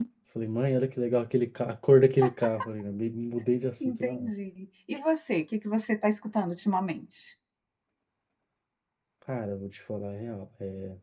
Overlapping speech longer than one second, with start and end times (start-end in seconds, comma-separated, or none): none